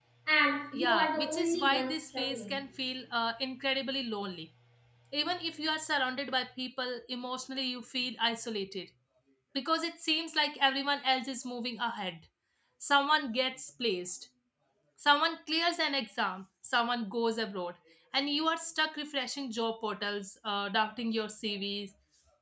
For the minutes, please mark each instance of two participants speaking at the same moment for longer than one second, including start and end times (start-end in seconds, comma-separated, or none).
0.7-2.6